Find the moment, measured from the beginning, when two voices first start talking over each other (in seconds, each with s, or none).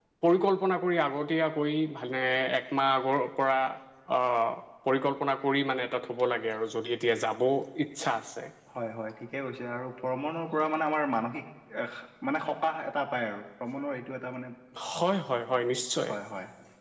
none